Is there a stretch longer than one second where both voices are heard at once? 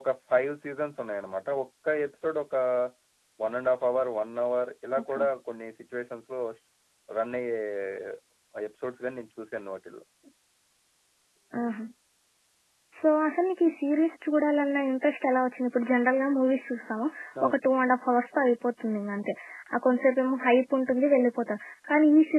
No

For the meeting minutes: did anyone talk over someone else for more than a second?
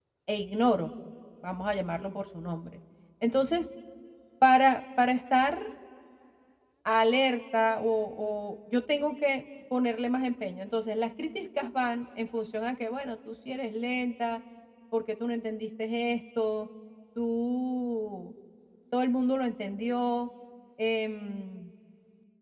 No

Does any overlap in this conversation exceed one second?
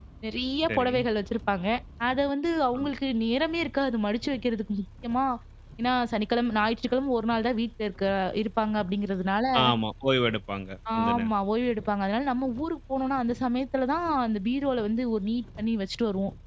No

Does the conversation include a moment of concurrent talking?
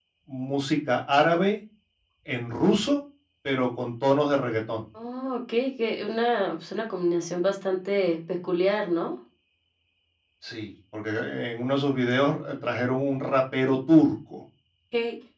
No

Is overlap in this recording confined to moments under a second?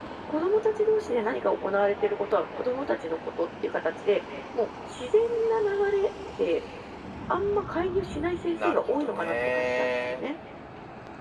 No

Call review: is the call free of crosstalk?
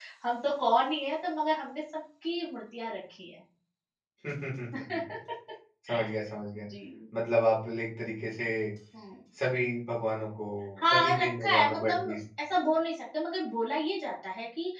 No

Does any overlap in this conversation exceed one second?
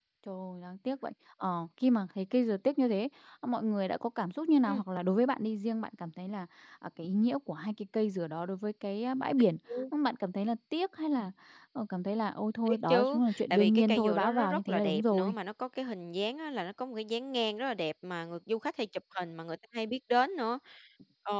Yes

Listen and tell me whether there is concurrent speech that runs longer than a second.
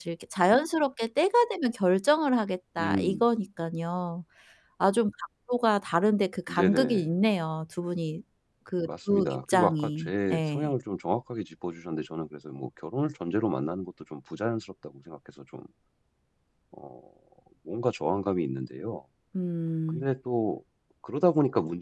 Yes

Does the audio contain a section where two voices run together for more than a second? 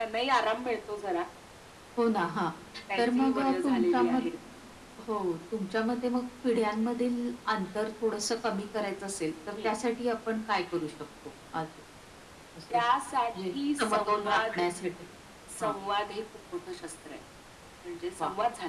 Yes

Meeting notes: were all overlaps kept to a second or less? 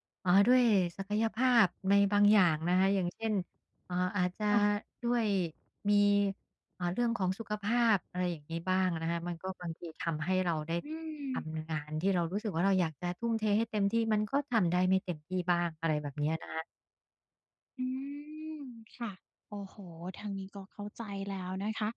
Yes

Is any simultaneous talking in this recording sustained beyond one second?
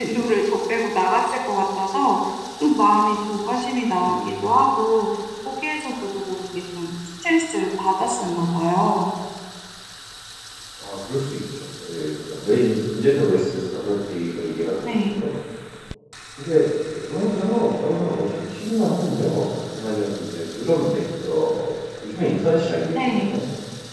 No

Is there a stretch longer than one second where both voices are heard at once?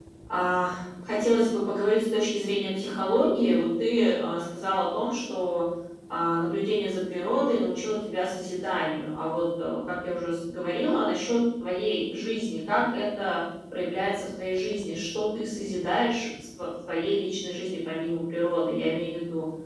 No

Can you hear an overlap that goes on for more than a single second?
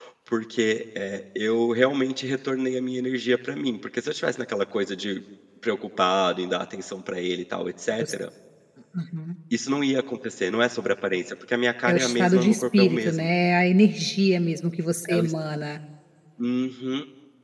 Yes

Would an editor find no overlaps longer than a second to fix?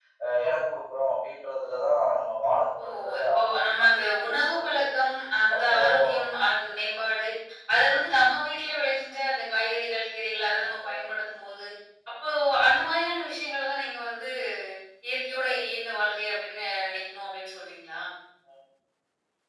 No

